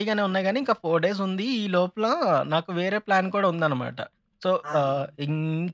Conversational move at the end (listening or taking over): listening